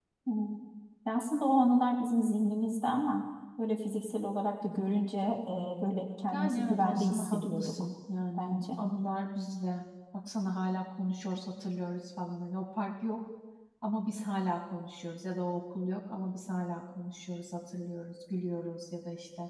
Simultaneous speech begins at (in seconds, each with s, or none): 6.3 s